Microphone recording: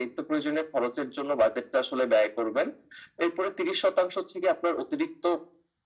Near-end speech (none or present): none